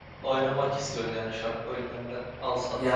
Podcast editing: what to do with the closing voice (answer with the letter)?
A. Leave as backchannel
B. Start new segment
B